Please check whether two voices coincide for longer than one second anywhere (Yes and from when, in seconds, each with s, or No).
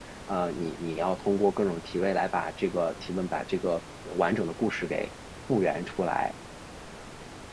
No